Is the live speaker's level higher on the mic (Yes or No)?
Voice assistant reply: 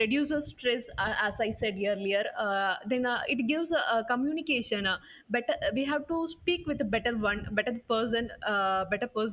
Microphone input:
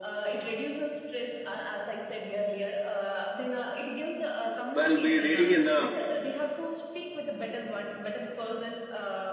Yes